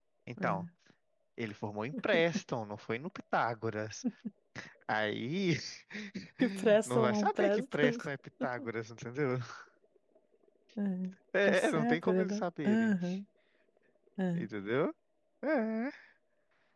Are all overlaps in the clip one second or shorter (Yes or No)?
No